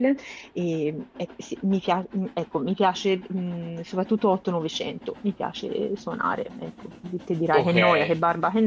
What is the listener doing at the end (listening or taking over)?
listening